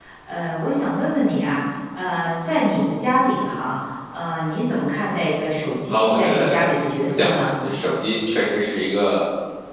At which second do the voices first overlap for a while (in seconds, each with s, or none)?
5.9 s